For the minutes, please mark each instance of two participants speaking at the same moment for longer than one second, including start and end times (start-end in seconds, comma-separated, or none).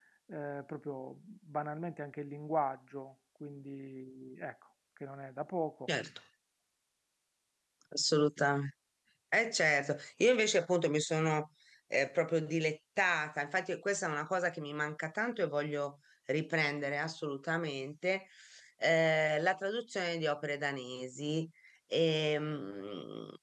none